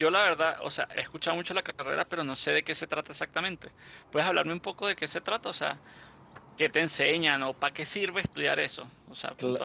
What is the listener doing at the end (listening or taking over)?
taking over